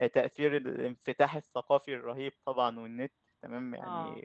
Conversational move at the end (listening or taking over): listening